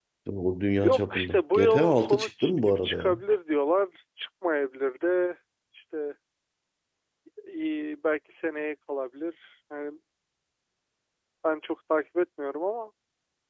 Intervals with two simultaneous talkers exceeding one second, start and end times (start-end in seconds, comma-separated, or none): 0.8-3.2